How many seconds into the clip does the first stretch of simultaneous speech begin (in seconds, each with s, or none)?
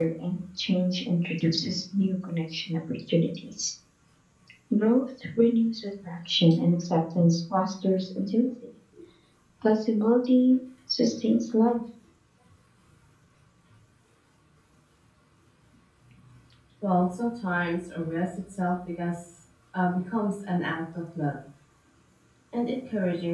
none